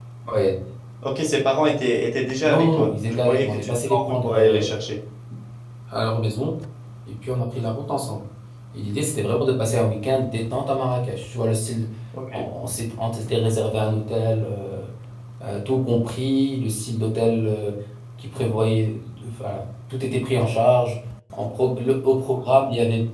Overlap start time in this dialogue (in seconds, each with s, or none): 2.4 s